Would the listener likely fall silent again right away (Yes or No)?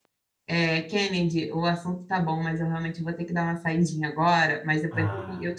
Yes